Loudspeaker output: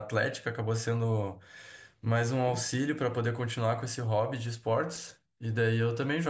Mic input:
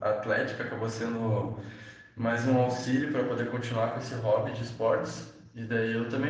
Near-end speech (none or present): none